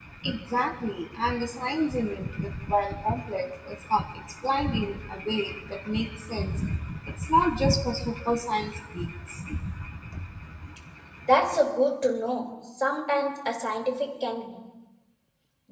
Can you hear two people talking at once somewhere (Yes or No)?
No